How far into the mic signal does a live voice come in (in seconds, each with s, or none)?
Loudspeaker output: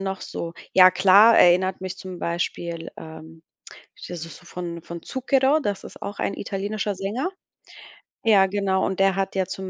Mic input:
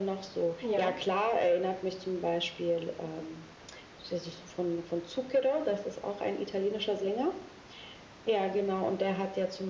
0.6 s